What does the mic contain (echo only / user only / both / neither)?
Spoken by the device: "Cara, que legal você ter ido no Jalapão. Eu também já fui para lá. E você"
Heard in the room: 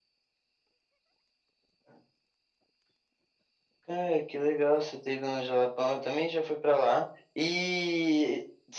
echo only